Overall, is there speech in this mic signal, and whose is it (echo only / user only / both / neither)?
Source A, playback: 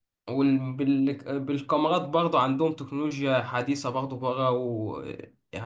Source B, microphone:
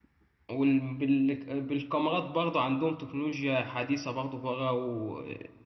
echo only